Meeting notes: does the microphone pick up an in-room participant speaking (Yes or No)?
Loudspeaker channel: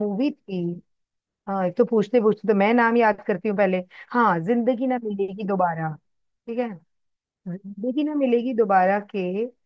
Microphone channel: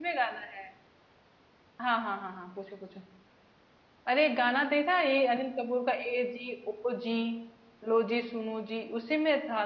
Yes